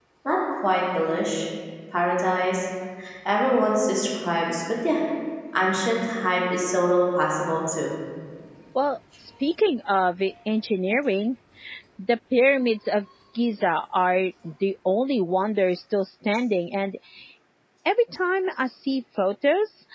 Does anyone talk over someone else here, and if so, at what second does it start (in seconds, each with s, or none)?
none